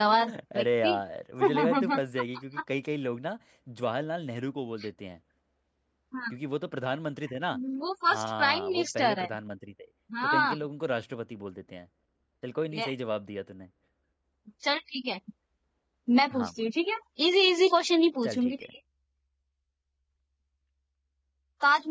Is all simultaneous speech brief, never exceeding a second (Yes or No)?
No